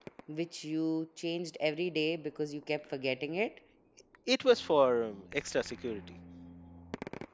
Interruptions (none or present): none